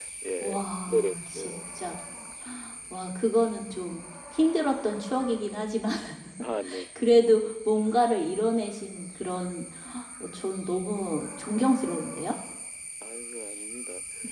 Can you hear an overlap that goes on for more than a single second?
Yes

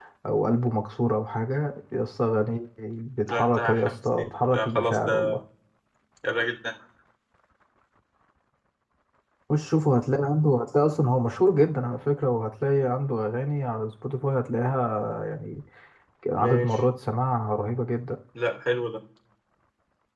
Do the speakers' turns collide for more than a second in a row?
Yes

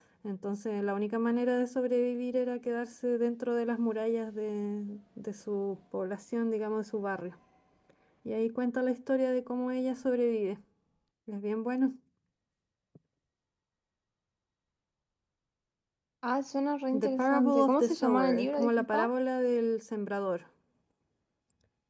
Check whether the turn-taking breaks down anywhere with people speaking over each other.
Yes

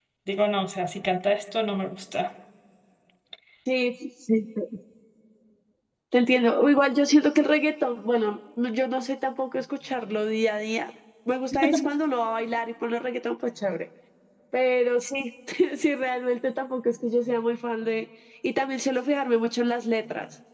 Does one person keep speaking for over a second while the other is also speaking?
No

